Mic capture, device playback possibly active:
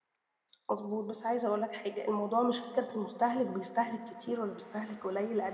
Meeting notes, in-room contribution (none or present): present